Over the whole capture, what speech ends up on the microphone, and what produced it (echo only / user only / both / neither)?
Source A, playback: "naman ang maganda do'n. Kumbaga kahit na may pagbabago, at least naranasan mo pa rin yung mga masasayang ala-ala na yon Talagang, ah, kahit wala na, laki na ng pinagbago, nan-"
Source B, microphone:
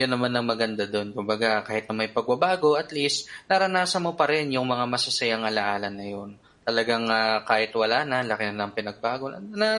echo only